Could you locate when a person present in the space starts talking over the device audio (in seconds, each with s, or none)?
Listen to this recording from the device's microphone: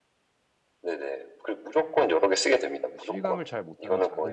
2.9 s